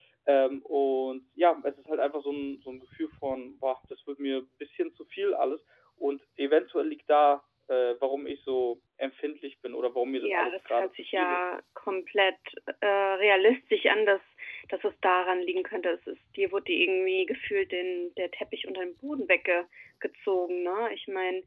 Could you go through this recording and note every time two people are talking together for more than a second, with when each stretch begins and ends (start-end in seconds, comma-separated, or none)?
10.2-11.4